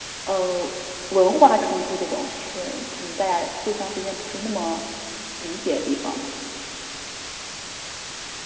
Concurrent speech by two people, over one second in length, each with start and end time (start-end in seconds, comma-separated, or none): none